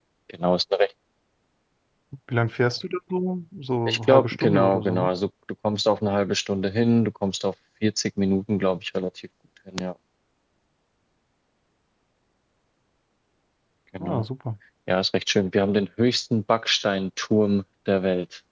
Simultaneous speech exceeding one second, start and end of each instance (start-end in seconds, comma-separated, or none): 3.9-5.1